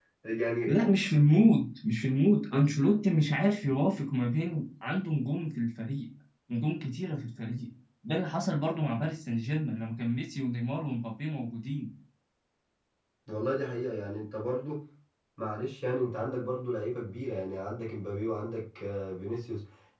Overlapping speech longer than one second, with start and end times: none

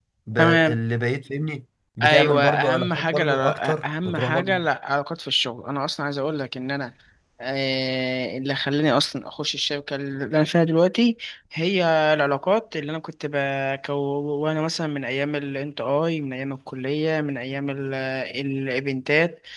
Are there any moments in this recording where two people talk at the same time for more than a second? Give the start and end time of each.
2.0-4.5

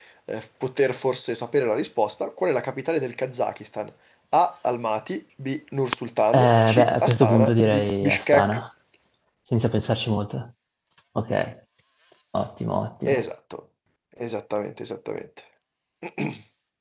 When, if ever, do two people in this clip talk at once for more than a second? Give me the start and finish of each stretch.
6.3-8.6

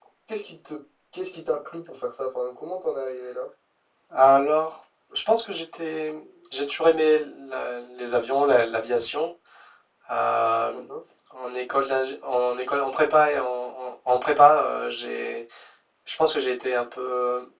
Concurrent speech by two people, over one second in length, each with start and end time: none

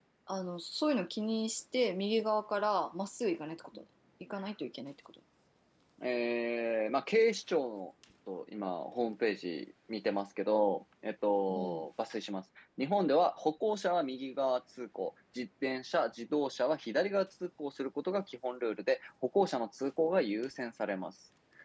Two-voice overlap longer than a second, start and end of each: none

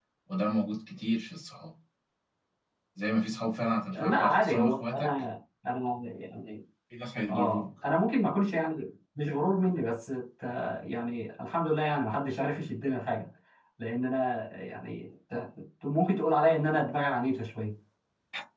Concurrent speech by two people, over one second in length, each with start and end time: 3.9-5.3

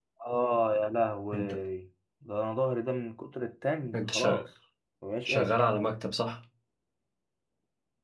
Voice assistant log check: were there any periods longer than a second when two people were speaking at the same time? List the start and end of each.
none

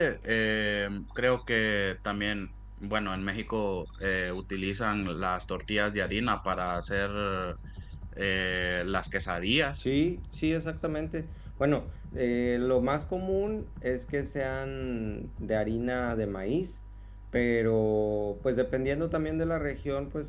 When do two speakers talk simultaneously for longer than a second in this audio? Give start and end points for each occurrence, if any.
none

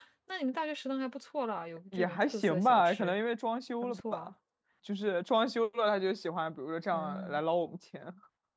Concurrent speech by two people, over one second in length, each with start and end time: 1.9-3.1

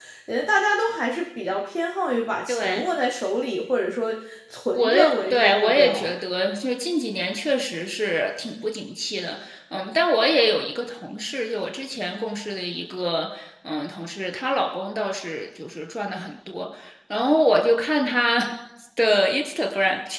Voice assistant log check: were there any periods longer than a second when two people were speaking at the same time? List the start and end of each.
4.7-6.1

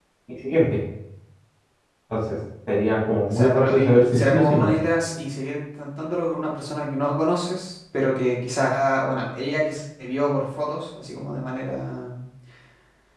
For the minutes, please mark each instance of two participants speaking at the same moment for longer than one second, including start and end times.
3.3-4.7

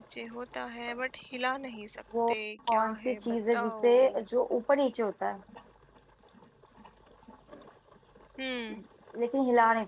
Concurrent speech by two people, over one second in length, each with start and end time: 2.7-4.2

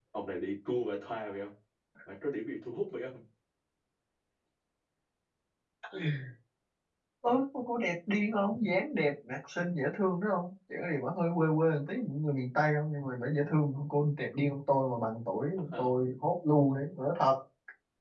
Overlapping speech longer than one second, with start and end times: none

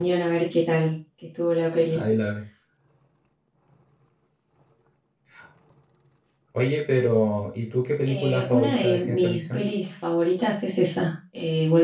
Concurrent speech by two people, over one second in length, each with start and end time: 8.1-9.6

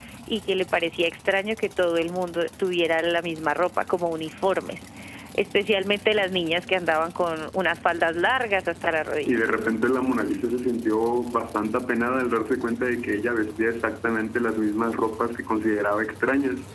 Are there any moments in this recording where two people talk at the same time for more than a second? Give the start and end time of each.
none

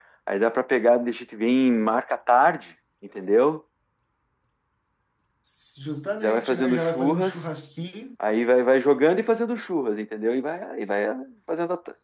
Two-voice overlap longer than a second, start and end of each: 6.2-7.4

